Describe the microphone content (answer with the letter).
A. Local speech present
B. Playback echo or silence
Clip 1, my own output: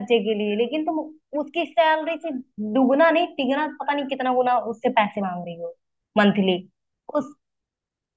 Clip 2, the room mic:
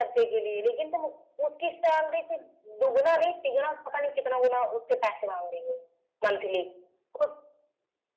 B